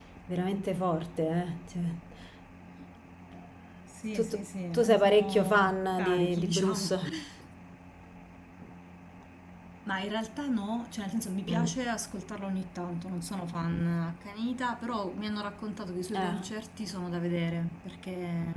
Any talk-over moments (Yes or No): Yes